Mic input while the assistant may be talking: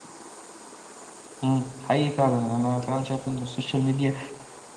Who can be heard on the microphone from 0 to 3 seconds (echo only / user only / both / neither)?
user only